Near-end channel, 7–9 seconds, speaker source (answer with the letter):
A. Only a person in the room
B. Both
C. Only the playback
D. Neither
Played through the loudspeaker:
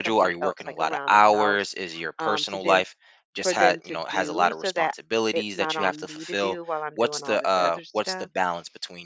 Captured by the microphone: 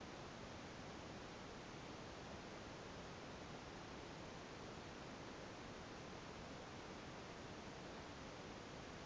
D